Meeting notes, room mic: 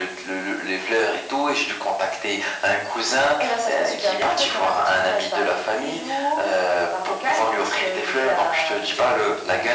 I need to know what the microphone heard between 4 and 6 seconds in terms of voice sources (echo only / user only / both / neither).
echo only